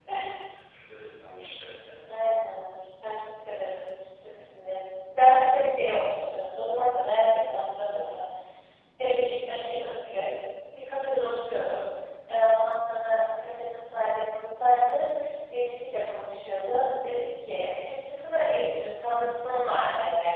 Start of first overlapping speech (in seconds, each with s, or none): none